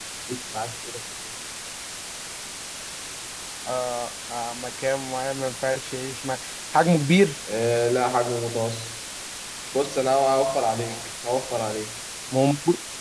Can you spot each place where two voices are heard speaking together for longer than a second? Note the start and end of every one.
none

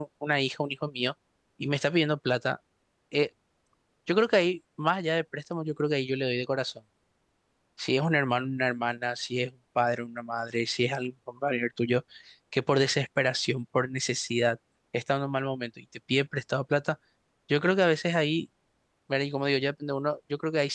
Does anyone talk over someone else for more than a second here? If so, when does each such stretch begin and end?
none

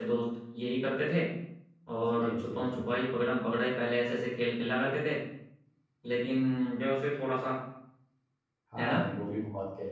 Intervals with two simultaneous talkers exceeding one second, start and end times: 2.0-3.3

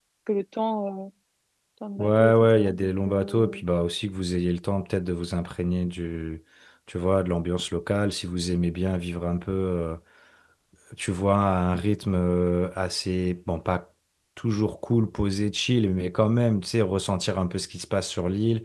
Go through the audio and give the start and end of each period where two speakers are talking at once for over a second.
2.0-3.6

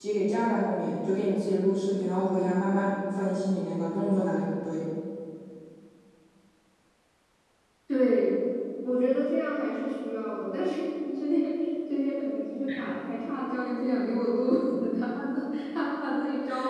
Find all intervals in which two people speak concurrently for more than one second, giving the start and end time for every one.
none

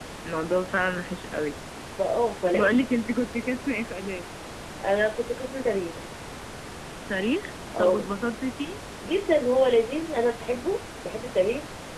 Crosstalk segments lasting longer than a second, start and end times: none

